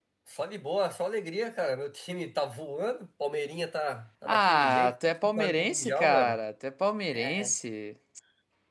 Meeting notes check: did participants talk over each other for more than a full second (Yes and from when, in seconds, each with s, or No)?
Yes, from 4.3 s